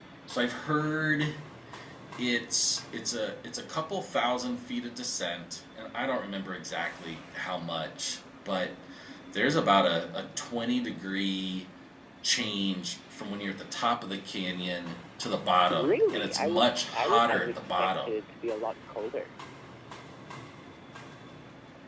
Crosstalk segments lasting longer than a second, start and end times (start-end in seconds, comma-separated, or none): 15.7-18.1